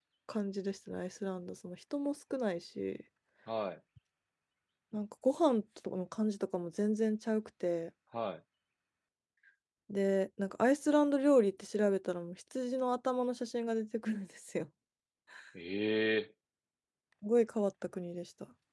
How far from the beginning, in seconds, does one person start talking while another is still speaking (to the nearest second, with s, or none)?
none